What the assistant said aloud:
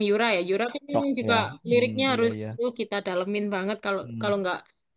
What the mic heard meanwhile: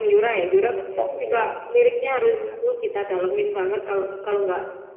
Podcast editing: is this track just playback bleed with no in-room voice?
Yes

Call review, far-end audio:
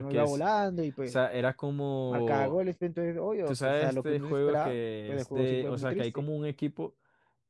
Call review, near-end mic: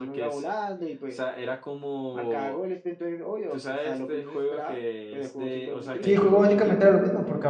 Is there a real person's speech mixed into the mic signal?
Yes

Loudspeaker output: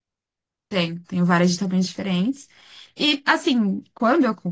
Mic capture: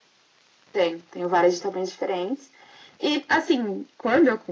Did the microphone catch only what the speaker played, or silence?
Yes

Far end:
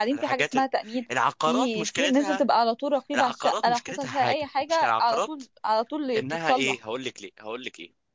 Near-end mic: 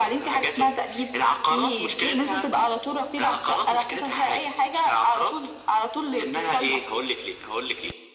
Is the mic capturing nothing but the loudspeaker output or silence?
Yes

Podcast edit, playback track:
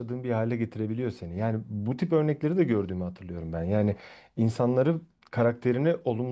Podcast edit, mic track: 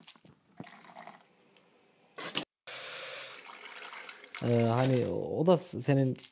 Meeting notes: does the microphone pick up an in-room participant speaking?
Yes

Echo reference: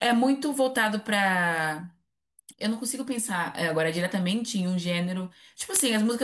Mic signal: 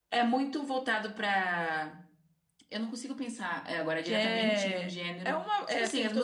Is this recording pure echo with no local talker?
No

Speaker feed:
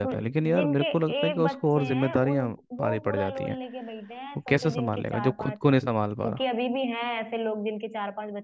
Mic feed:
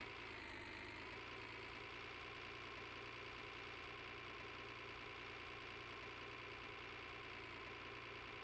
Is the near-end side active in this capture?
No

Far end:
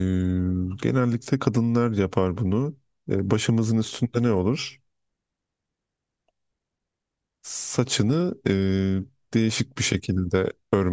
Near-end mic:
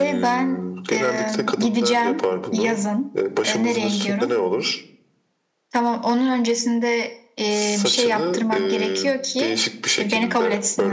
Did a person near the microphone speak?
Yes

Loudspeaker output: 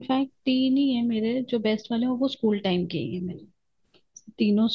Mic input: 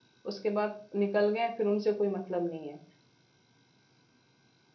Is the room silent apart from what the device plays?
No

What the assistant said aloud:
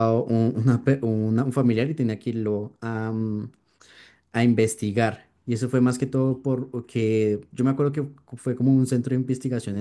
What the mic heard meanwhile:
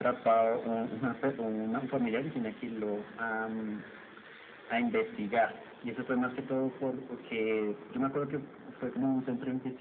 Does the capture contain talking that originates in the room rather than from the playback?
No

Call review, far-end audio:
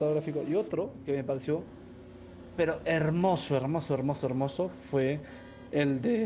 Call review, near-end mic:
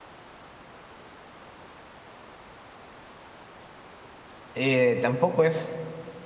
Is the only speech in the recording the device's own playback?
No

